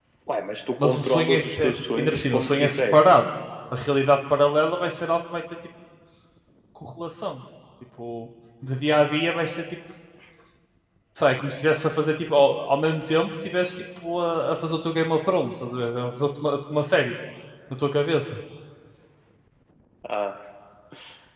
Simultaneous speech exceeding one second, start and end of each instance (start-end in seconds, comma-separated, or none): 0.8-3.0